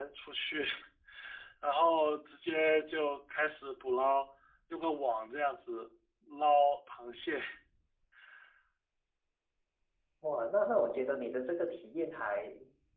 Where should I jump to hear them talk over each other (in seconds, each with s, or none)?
none